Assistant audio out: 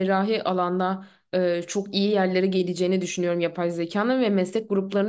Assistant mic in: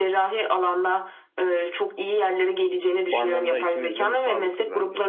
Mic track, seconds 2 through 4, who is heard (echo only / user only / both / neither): both